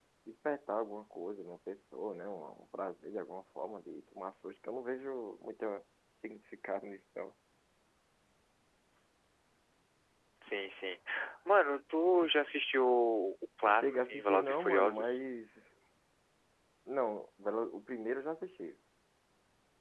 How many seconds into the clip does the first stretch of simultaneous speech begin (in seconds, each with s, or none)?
13.7 s